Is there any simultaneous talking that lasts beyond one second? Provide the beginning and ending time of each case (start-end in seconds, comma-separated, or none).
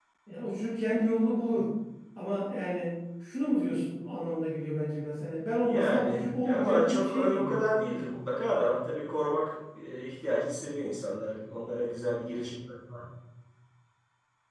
5.7-7.7